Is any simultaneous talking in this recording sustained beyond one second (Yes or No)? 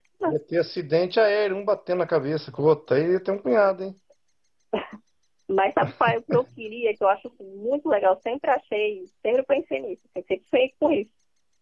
No